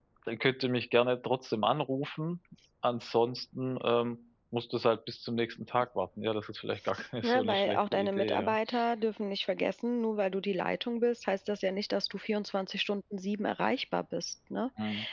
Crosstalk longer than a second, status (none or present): present